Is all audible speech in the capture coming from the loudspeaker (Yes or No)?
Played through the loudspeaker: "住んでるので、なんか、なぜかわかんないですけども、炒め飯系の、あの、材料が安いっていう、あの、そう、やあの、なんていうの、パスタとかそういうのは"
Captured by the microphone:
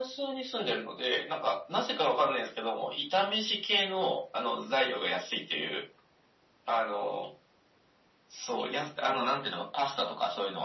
Yes